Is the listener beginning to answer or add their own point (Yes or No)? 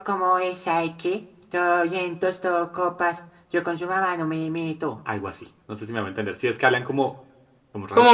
Yes